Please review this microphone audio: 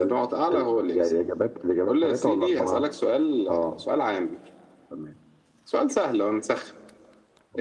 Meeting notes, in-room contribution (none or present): none